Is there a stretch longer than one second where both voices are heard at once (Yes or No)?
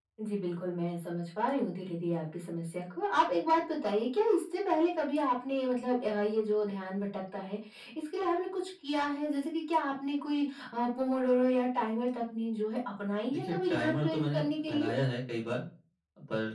Yes